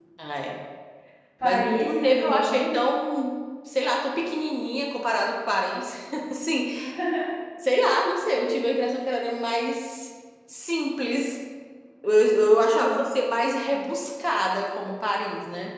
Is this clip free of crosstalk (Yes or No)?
No